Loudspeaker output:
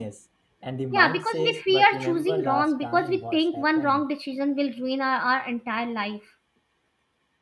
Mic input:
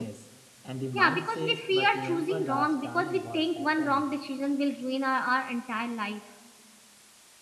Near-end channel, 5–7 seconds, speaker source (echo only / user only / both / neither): echo only